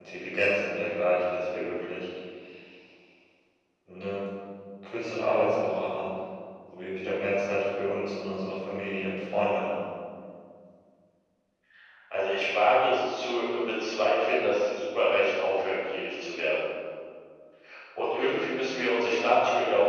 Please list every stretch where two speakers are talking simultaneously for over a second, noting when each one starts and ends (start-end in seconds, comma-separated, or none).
none